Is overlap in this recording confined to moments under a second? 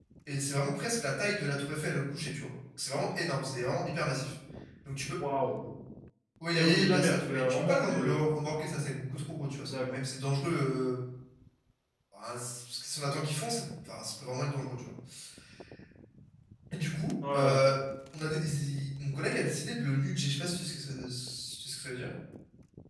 No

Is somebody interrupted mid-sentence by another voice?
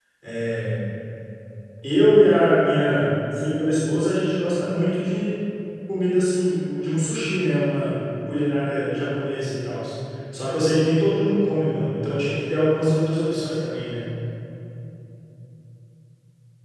No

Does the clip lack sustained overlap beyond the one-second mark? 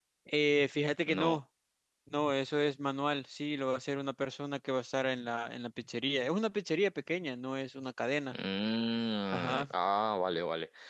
Yes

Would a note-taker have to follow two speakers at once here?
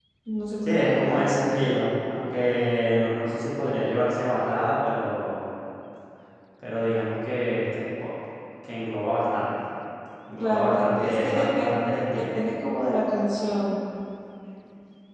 Yes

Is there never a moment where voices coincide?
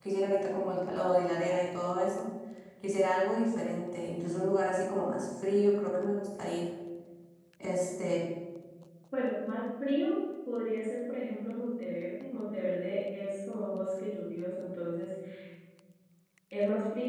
Yes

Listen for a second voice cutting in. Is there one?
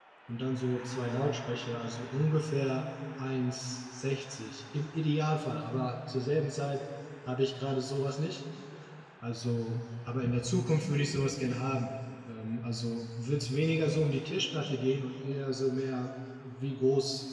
No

